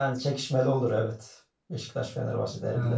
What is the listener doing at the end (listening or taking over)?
taking over